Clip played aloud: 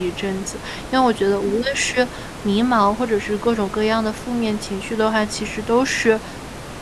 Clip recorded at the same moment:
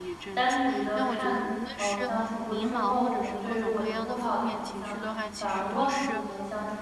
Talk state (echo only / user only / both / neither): both